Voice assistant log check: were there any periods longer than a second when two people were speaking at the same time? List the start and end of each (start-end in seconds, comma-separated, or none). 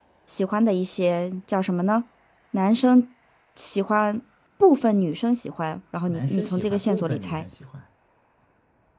6.1-7.4